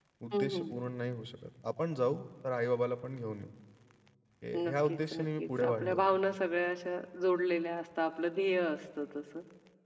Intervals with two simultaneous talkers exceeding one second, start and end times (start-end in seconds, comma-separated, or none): 4.6-6.0